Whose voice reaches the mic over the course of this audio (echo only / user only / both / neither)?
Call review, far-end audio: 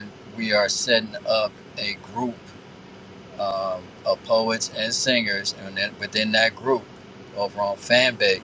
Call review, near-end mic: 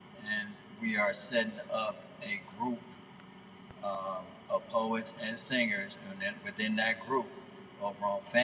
echo only